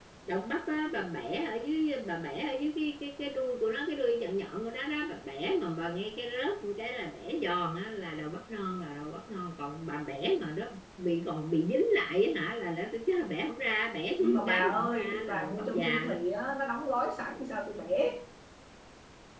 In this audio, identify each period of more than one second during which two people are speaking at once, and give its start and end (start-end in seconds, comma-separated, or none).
14.2-16.1